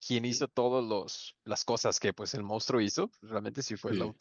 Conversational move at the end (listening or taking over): listening